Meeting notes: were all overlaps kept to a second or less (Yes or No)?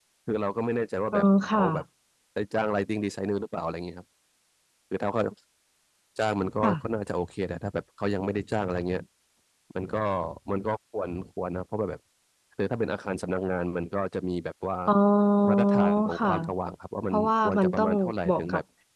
No